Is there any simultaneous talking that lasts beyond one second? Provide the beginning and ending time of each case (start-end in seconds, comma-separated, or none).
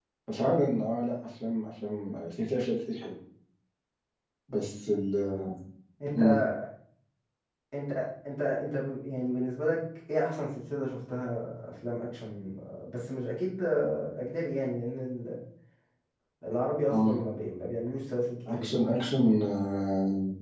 none